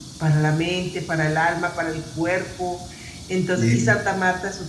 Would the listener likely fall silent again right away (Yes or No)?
Yes